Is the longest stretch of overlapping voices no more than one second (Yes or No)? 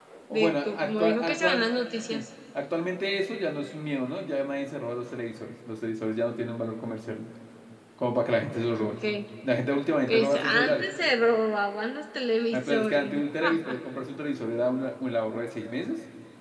No